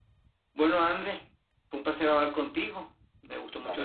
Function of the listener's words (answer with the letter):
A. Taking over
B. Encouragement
B